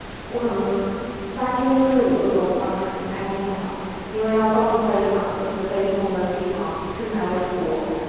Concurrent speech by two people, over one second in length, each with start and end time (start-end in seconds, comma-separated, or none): none